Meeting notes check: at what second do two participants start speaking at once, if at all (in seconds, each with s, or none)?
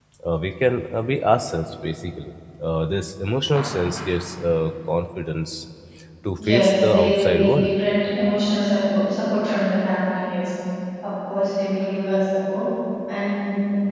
6.5 s